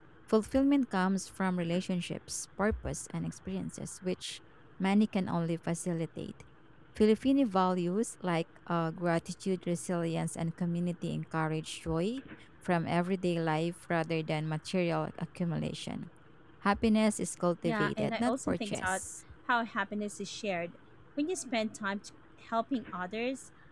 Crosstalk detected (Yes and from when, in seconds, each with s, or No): Yes, from 17.6 s